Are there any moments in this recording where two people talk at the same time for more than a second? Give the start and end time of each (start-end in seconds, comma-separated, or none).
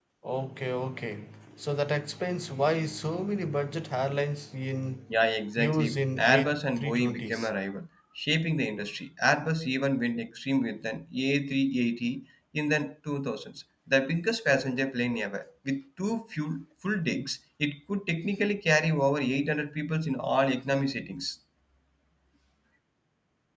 5.6-7.5